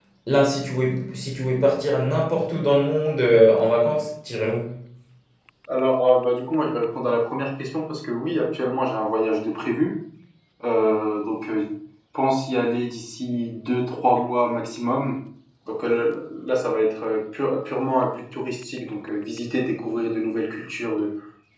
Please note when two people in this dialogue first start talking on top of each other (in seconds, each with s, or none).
none